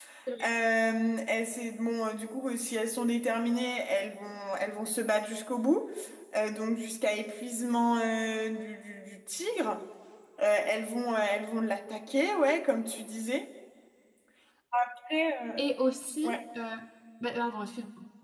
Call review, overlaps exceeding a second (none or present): none